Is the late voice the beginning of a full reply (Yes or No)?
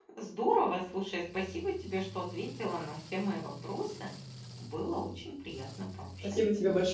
Yes